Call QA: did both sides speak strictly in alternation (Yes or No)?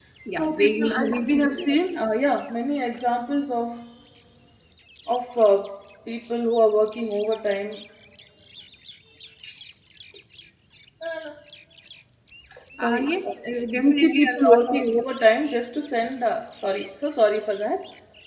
No